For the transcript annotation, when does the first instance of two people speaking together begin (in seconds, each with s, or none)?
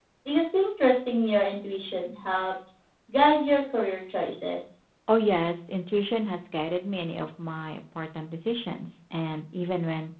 none